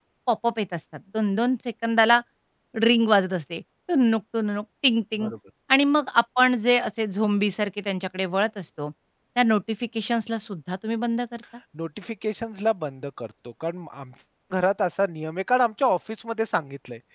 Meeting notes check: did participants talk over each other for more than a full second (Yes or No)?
No